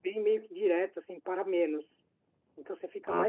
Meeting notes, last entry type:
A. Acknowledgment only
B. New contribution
B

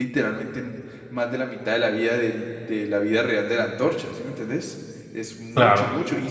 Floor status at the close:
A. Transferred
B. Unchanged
B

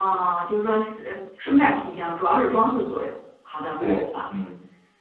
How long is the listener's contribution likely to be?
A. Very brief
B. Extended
B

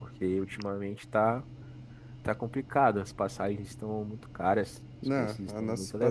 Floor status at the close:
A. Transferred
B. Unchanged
A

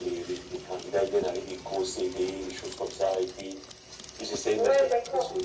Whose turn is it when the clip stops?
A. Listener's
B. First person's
A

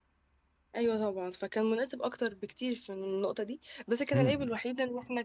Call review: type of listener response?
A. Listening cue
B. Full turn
A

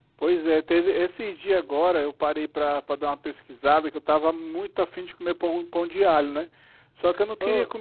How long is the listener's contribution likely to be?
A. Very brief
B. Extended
A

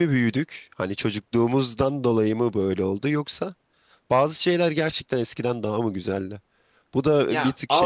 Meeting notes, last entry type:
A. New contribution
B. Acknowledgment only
A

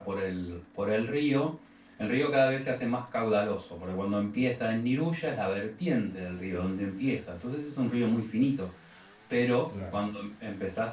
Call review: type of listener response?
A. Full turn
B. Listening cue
B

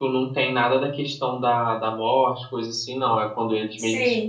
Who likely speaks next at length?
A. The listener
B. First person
B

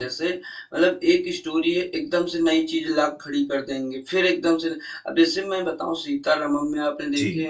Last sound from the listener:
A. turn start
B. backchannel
B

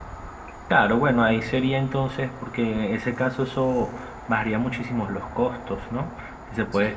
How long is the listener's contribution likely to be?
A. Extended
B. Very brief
B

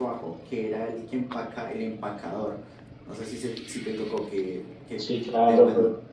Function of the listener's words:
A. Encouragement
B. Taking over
B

